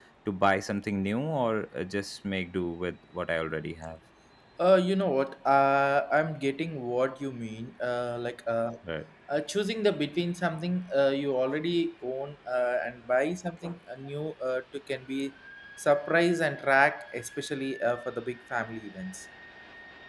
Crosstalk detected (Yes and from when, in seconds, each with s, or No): No